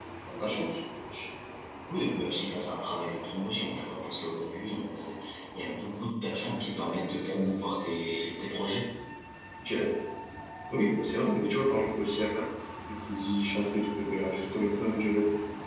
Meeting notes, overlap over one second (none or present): none